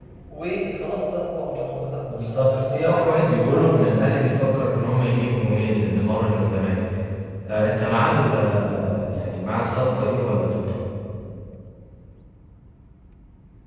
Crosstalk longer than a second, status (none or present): present